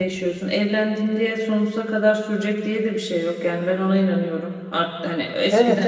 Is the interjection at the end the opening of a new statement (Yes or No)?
No